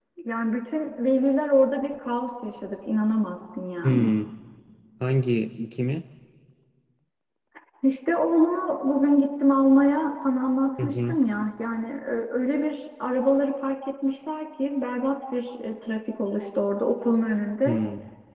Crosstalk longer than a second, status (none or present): none